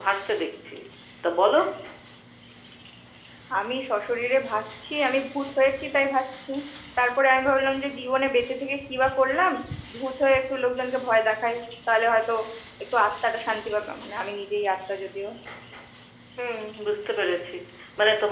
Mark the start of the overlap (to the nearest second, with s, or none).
none